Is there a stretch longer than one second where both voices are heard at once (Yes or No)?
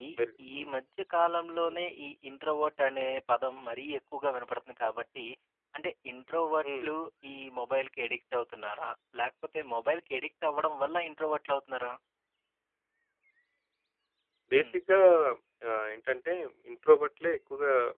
No